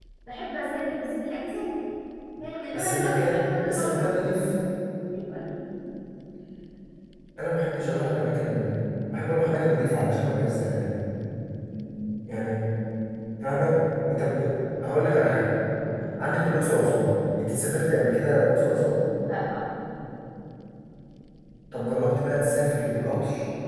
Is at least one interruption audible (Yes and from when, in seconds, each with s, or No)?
Yes, from 2.7 s